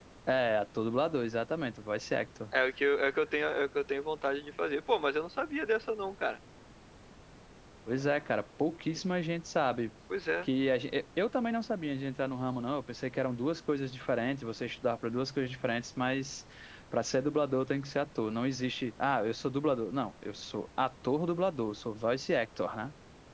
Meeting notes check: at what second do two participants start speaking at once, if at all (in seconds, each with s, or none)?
none